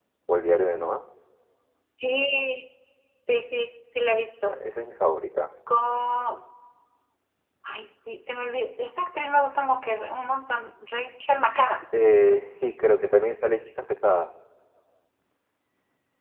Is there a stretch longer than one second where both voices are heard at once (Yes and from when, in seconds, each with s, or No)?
No